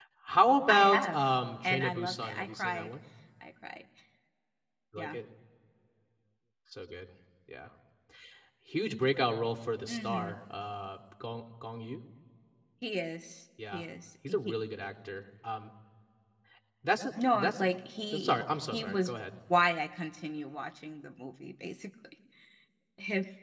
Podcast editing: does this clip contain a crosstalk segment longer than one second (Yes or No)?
Yes